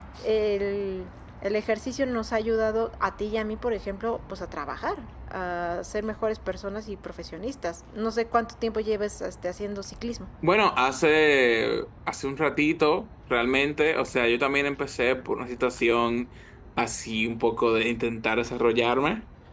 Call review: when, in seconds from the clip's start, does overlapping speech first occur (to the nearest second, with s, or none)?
none